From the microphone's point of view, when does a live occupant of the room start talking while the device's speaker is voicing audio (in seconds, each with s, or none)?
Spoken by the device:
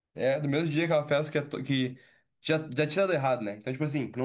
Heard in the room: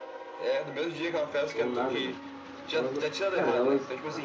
1.5 s